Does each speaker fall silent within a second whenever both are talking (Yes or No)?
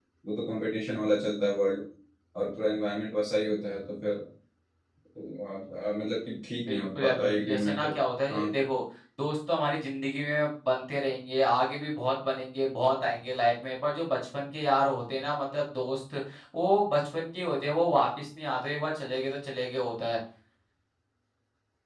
No